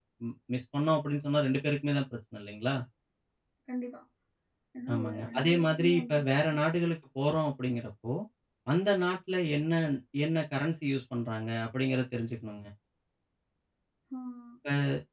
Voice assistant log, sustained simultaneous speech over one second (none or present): present